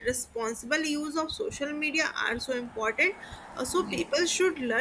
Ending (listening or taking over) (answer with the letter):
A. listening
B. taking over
A